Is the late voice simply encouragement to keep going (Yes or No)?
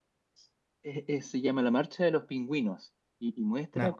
Yes